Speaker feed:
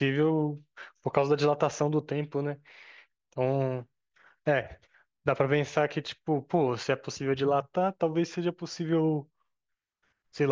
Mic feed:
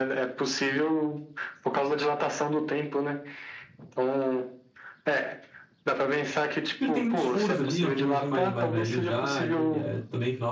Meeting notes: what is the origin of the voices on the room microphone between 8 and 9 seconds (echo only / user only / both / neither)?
both